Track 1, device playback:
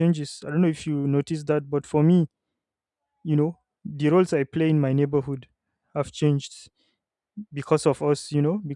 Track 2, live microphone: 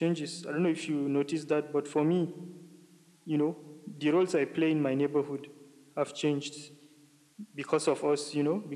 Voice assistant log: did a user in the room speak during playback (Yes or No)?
No